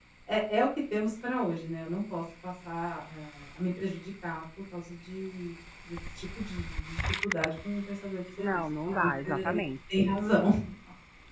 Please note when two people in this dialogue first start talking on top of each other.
8.4 s

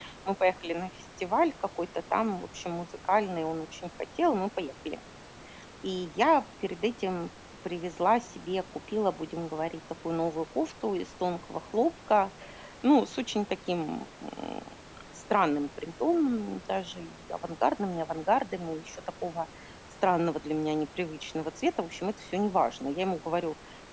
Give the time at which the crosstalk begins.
none

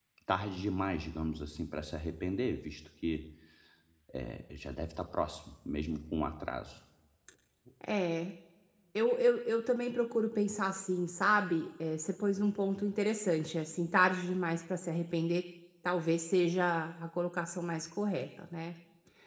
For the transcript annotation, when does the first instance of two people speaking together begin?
none

